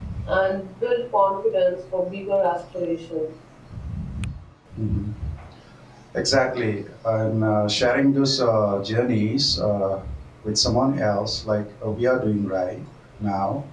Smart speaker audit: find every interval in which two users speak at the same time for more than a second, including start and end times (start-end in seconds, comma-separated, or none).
none